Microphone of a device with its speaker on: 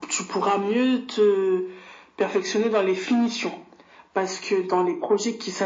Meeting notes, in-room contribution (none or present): none